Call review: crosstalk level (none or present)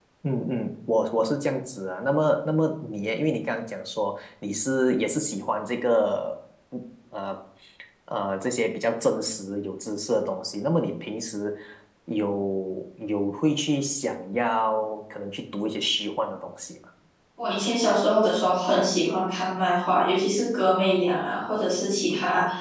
none